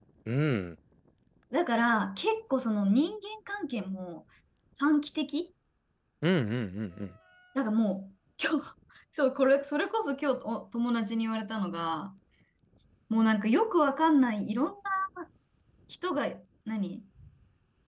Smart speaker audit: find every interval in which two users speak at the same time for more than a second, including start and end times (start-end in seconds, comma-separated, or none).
none